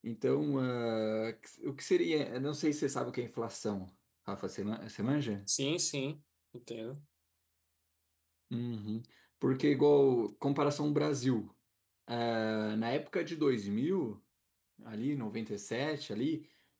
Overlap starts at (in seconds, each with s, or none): none